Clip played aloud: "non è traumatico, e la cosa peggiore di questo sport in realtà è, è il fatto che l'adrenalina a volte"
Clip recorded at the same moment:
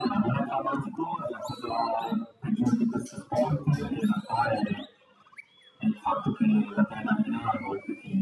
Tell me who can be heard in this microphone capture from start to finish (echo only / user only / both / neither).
echo only